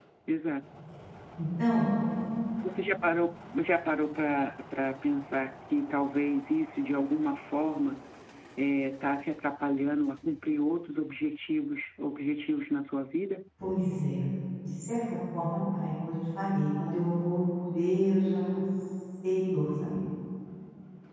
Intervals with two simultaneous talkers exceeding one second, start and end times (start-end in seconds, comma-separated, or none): none